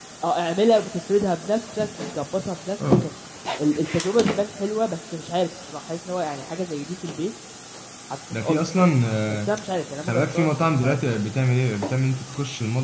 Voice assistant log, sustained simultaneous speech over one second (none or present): present